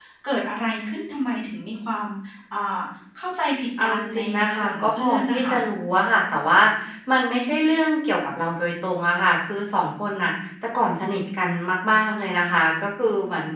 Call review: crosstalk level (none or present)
present